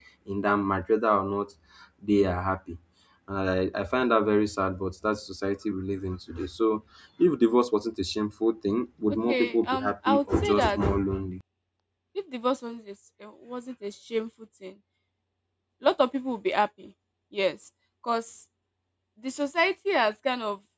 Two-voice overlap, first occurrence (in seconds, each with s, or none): 9.3 s